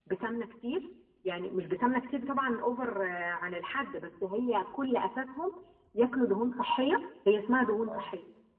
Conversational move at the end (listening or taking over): listening